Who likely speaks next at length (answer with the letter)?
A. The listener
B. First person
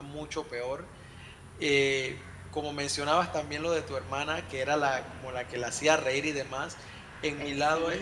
B